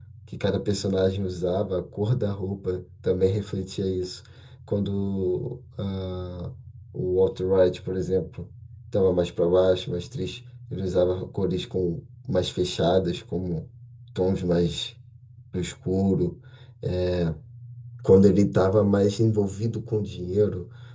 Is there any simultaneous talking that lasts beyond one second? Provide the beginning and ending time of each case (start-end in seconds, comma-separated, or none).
none